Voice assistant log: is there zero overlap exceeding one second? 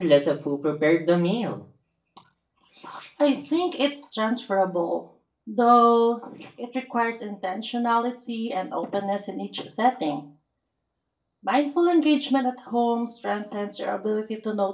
Yes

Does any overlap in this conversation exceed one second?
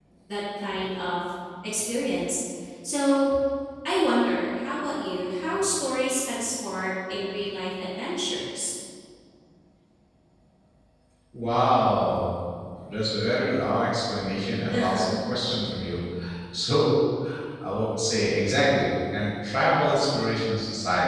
No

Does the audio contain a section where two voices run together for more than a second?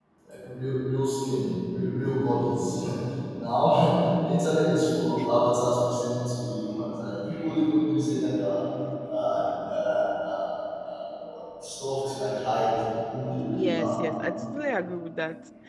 No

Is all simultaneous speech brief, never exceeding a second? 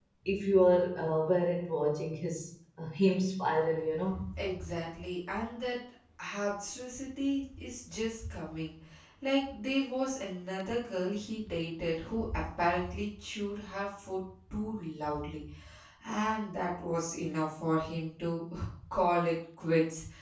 Yes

